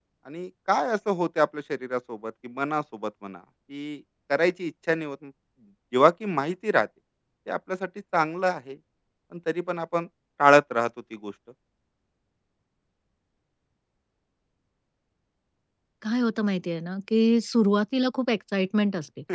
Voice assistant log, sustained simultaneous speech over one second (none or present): none